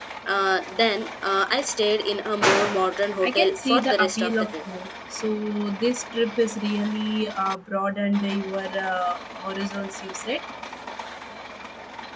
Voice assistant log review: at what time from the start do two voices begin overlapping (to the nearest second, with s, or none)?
3 s